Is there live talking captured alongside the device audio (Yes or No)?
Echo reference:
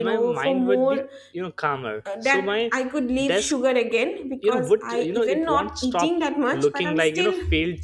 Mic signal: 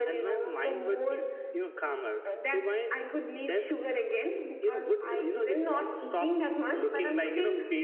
No